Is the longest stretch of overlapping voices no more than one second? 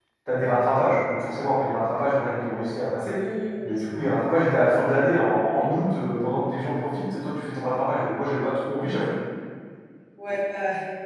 Yes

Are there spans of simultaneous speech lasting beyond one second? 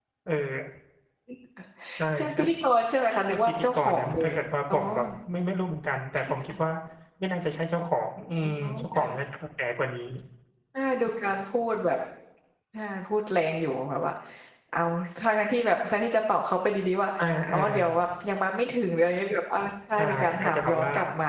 Yes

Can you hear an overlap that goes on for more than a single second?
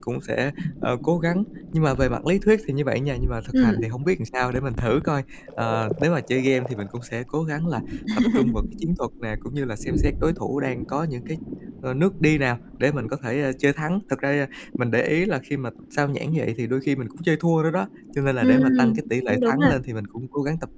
Yes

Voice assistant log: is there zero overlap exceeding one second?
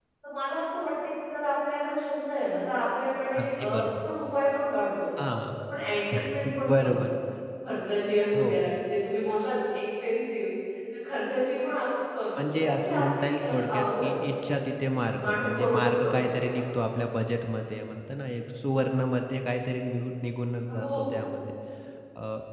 No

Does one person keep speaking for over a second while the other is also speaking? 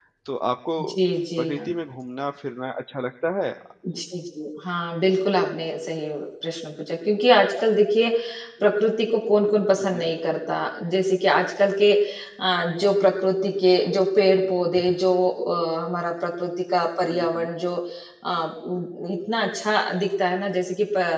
No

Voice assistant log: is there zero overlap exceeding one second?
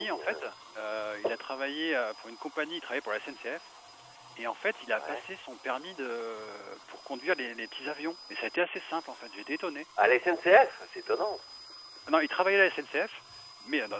Yes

